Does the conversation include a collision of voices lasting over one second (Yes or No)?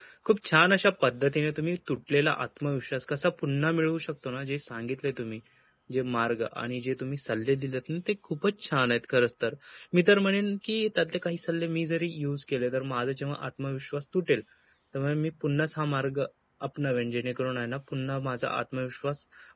No